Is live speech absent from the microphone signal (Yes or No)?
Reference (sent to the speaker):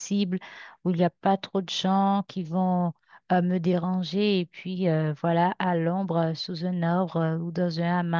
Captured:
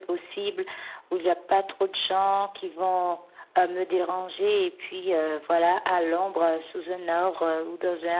Yes